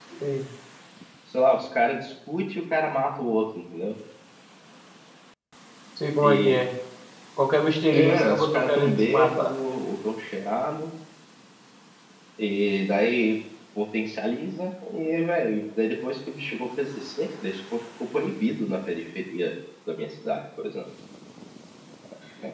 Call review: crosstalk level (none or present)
present